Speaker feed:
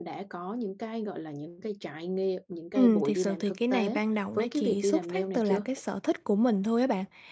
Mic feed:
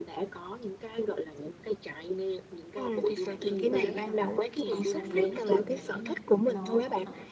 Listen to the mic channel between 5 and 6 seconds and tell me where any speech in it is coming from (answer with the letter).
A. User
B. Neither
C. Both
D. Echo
C